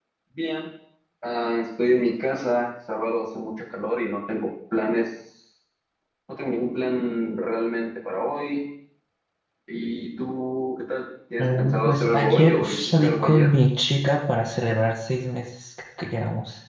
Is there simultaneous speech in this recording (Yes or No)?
Yes